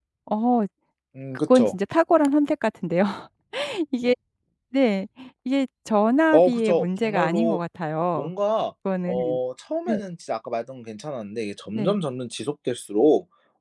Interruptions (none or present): present